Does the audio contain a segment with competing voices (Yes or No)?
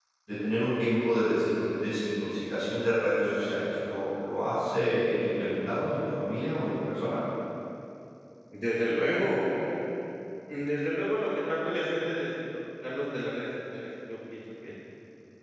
No